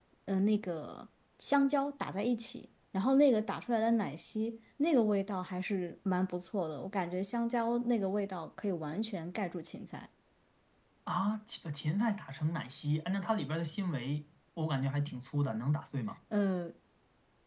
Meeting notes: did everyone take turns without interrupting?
Yes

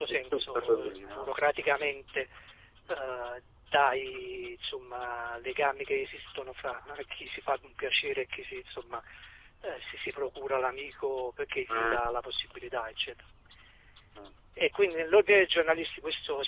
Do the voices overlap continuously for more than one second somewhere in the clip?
Yes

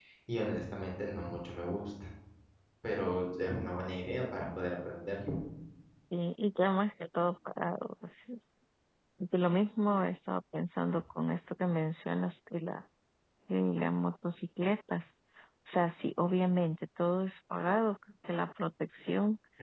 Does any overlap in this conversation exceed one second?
No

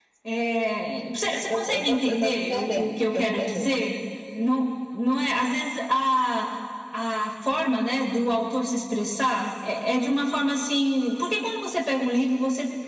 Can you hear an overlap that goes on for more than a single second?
Yes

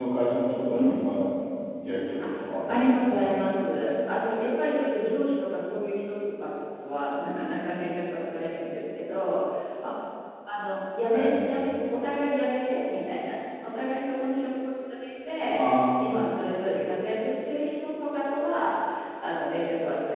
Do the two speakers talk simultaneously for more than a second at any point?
Yes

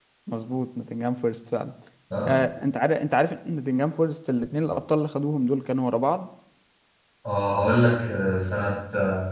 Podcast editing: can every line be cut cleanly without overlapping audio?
Yes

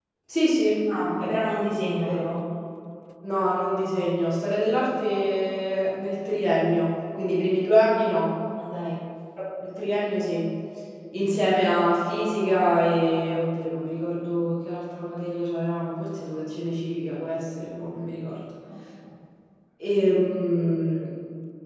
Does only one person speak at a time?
Yes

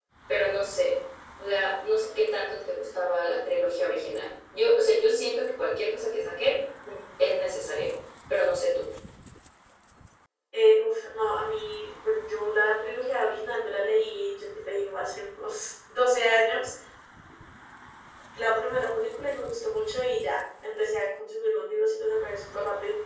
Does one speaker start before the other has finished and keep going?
No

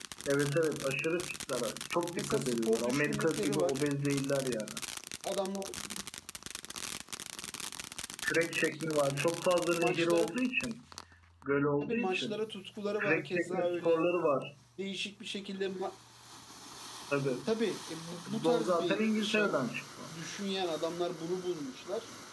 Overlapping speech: Yes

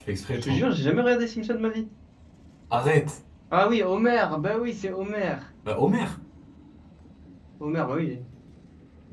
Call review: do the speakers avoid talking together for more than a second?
Yes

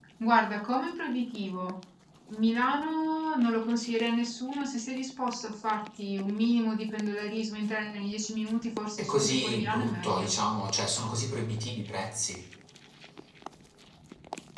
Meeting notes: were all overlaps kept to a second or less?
No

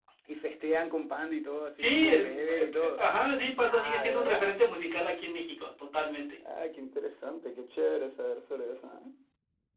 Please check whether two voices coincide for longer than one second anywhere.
Yes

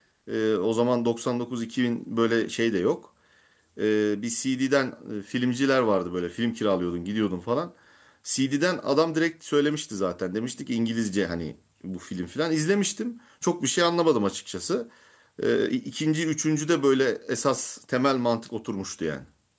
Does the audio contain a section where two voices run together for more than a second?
No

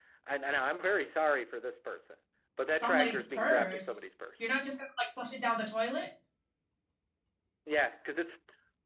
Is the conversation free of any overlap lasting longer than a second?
No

